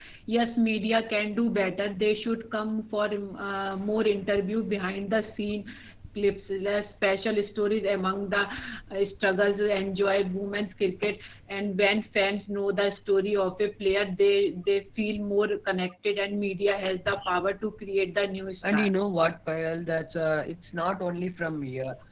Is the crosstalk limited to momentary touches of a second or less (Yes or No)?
Yes